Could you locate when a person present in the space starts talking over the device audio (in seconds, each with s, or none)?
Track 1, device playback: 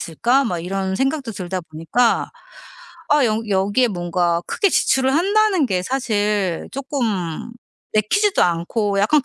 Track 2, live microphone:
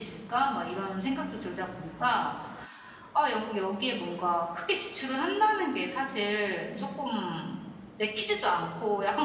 6.8 s